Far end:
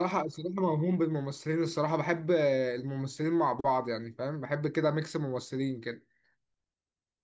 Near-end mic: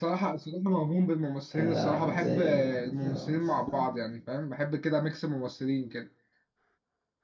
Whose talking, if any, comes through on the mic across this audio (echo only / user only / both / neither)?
both